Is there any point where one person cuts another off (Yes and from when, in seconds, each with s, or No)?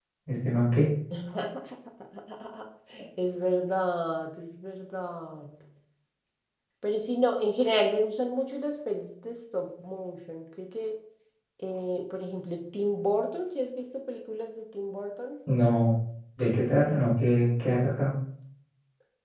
No